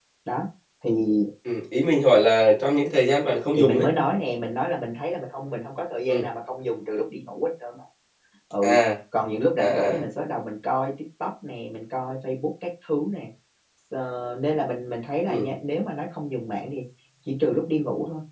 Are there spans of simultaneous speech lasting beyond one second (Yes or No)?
No